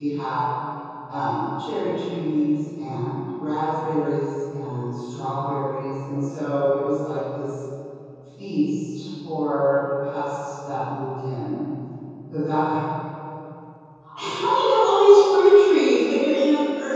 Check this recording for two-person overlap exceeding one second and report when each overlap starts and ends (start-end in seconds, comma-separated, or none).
none